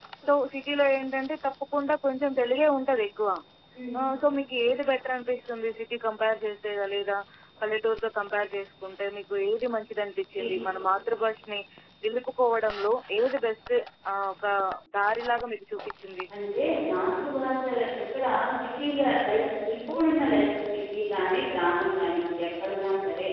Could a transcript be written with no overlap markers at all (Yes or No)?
Yes